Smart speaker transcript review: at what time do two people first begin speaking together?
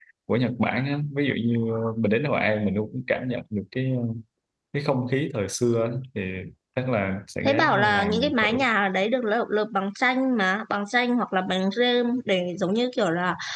7.4 s

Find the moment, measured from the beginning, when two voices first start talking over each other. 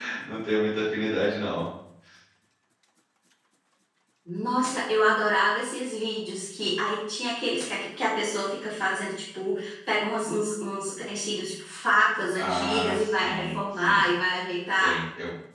12.4 s

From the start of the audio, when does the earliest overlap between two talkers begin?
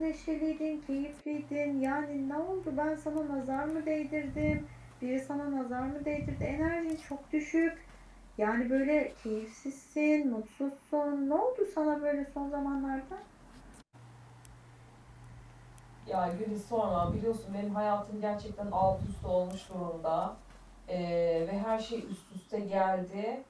none

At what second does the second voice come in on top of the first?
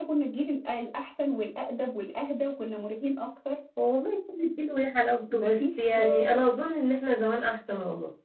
5.3 s

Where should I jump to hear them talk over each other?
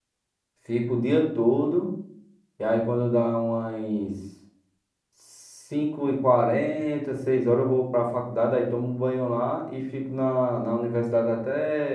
none

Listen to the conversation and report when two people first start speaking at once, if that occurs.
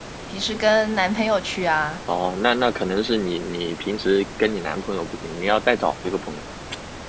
none

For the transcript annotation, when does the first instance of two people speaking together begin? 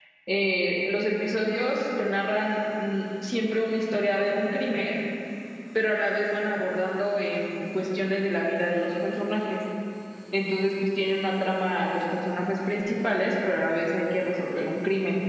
none

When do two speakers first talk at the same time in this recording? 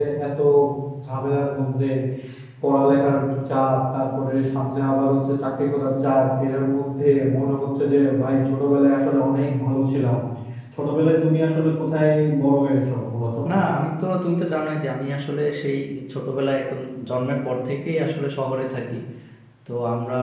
none

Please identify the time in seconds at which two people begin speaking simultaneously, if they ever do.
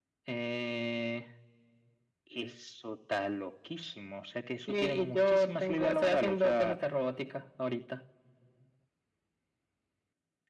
4.7 s

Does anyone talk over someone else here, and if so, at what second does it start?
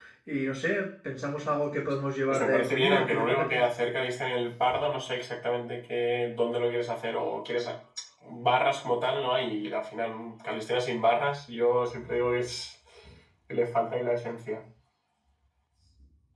2.3 s

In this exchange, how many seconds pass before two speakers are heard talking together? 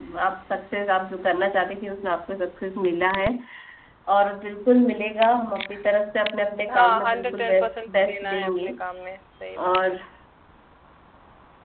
6.7 s

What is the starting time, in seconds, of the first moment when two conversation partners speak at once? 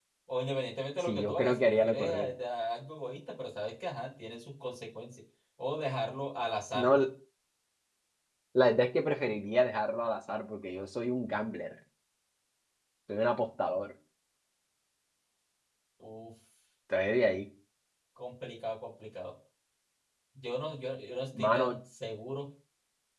1.0 s

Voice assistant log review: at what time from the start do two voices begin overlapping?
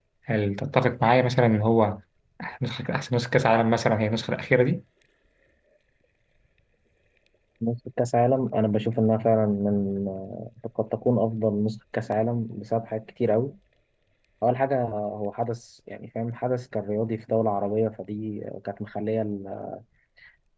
none

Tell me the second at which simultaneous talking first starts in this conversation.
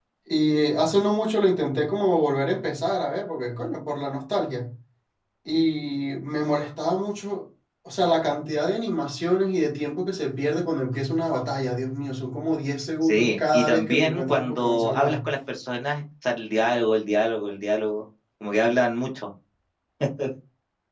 13.0 s

